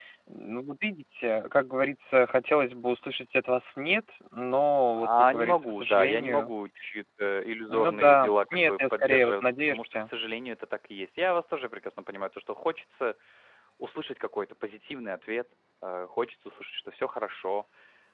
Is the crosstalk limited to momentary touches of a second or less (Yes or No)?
No